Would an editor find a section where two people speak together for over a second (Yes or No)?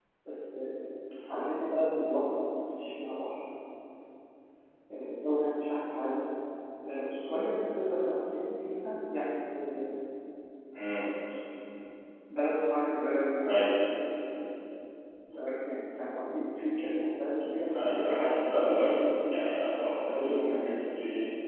Yes